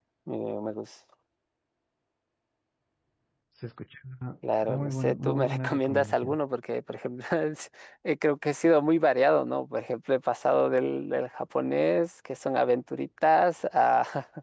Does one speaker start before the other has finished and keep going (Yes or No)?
Yes